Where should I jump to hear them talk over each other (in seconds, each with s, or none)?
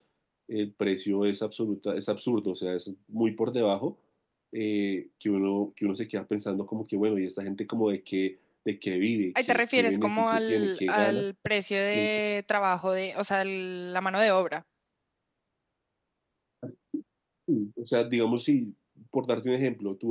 9.4 s